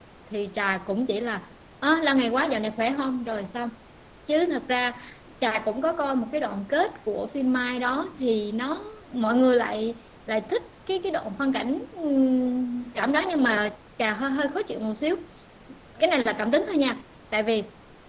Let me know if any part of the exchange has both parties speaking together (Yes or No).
No